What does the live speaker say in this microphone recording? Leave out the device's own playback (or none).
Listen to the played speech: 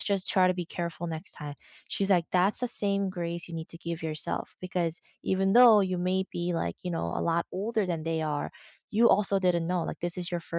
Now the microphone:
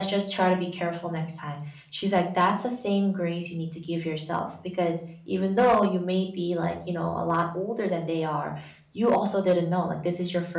none